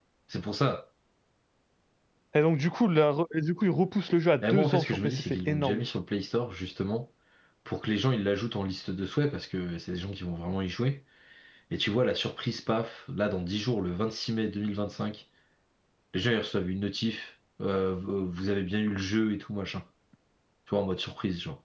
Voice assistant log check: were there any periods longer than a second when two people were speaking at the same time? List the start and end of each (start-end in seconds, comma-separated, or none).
4.4-5.8